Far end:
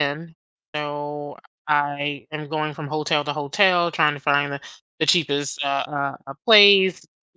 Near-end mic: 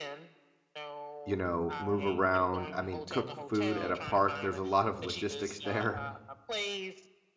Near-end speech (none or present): present